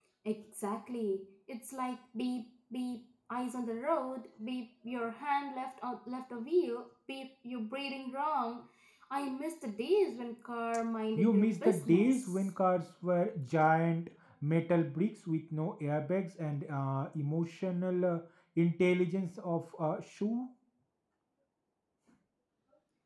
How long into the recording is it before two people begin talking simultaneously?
11.2 s

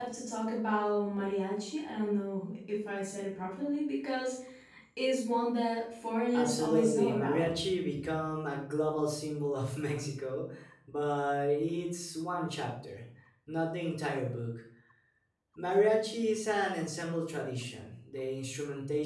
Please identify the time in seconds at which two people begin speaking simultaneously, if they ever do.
6.3 s

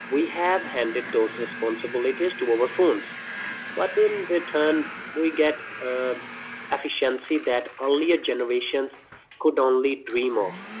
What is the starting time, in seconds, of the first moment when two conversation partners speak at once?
none

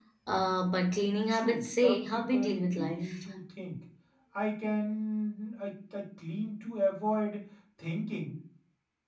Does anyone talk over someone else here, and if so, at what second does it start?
1.3 s

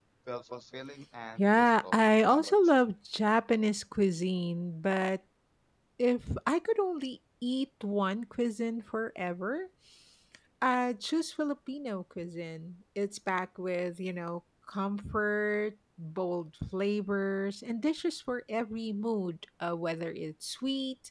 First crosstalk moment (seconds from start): 1.4 s

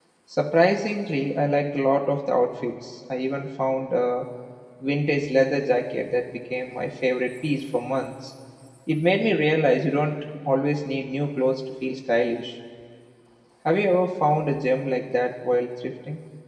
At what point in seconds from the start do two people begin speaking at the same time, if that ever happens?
none

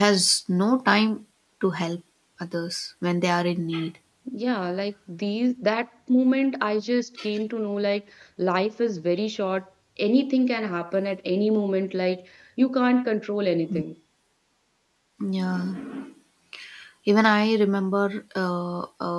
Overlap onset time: none

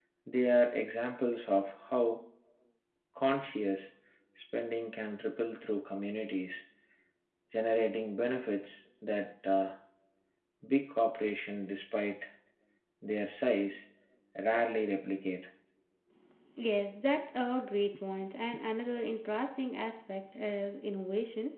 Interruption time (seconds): none

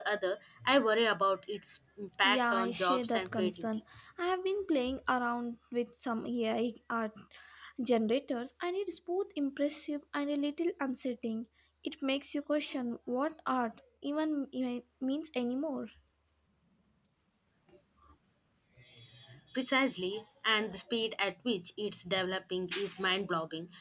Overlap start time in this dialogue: 2.2 s

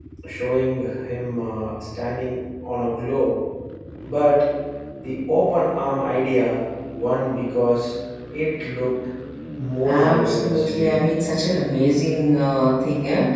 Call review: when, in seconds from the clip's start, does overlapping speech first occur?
9.8 s

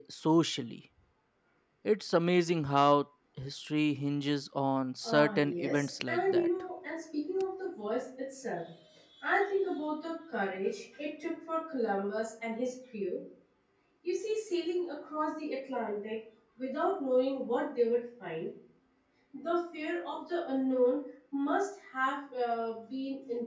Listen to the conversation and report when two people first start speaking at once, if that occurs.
5.0 s

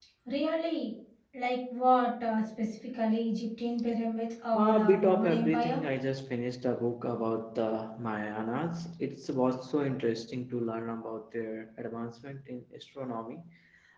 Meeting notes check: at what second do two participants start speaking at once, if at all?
4.5 s

